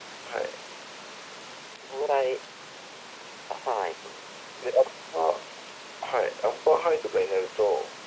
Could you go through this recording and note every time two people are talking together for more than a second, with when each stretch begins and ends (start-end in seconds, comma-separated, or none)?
none